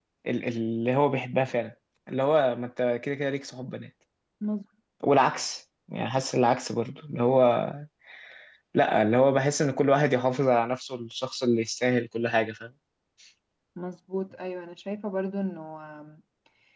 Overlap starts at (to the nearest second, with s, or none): none